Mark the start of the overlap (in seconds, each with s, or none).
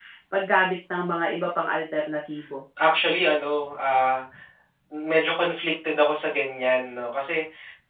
none